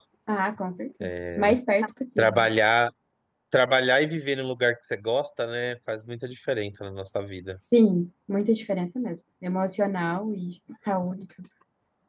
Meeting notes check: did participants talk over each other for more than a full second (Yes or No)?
No